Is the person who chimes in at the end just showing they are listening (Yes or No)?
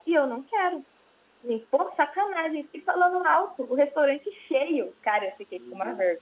Yes